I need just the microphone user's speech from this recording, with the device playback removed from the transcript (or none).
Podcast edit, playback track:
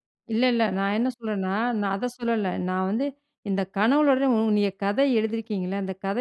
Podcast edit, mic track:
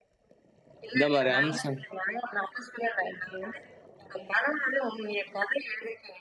இந்த மாரி அம்சம்